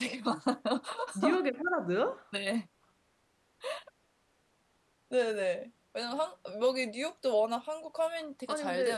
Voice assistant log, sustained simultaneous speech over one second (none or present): none